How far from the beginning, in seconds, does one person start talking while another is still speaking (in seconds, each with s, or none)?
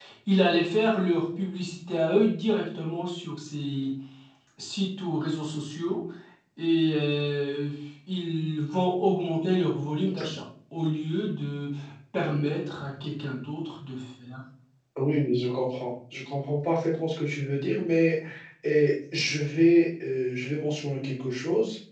none